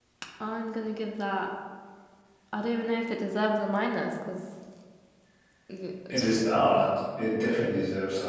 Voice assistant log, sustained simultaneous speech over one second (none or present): none